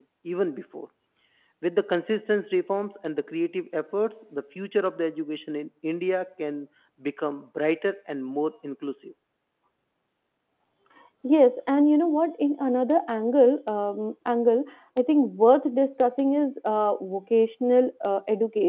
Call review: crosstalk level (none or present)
none